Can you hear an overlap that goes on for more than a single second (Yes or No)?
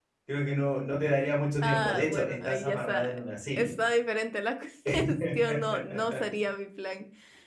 Yes